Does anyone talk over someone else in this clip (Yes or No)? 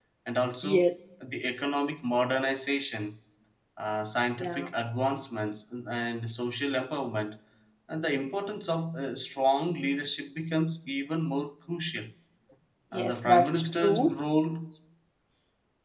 Yes